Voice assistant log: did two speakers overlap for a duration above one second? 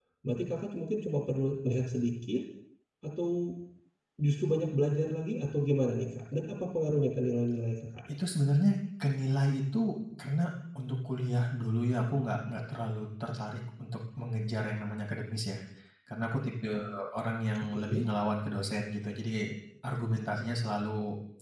No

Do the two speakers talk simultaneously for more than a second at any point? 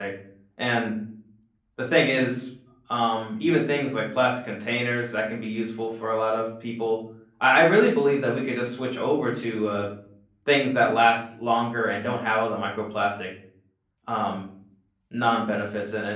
No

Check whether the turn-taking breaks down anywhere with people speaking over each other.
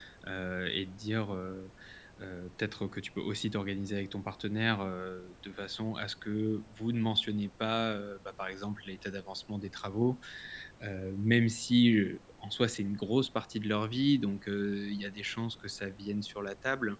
No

